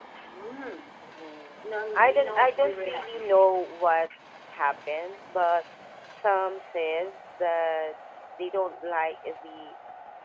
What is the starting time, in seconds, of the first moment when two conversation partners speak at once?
1.6 s

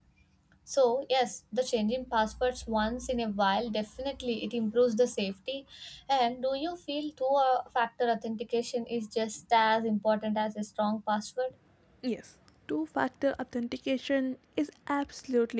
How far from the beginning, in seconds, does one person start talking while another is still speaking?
none

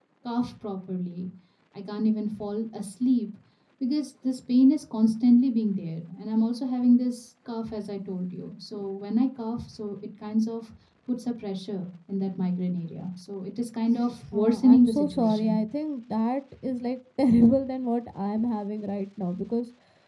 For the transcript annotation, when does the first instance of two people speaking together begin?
14.3 s

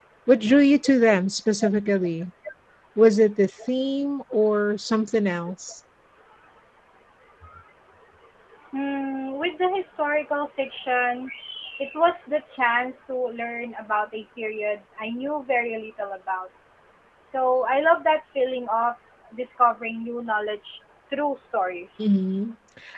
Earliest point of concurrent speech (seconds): none

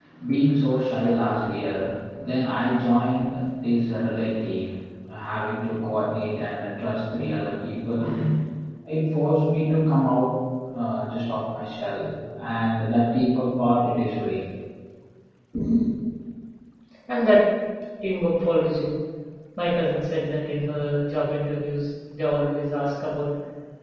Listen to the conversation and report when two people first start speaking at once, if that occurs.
none

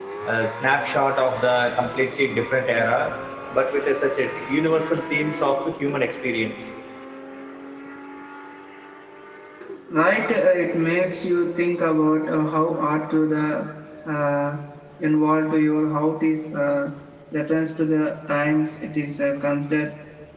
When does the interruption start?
none

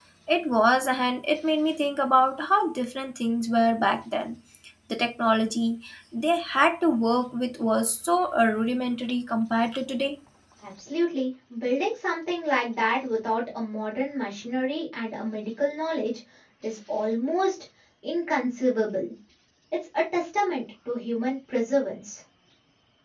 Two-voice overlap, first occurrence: none

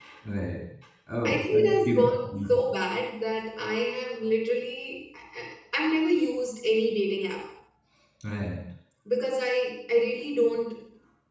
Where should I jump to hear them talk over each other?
1.2 s

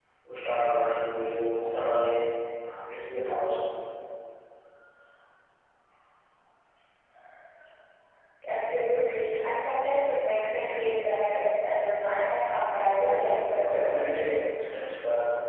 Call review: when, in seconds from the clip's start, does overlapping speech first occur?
13.0 s

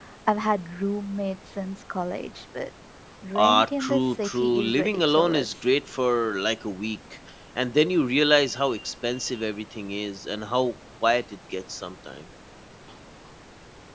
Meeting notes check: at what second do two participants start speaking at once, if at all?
3.4 s

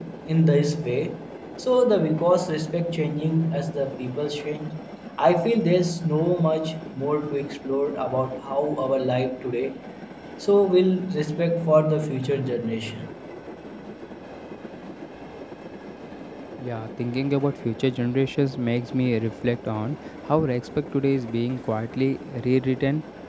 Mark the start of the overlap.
none

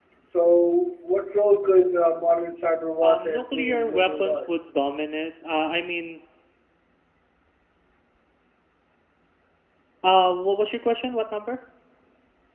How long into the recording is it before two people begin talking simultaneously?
3.0 s

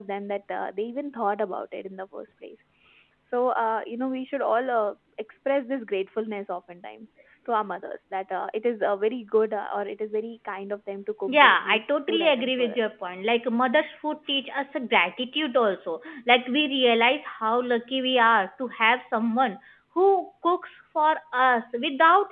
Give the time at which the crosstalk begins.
11.3 s

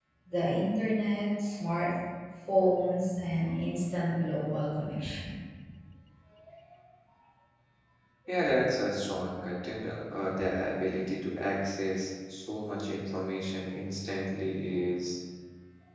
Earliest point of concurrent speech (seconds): none

